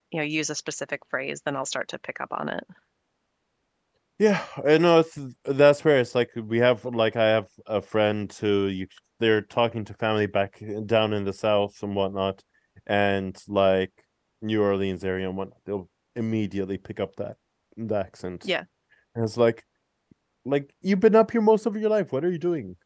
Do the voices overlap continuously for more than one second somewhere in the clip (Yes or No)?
No